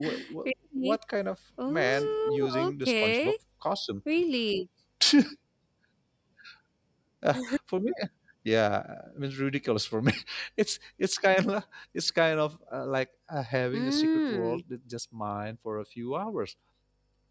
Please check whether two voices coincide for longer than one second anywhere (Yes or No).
Yes